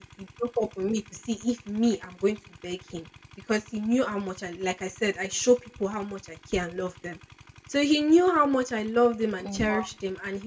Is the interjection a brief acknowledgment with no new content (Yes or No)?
Yes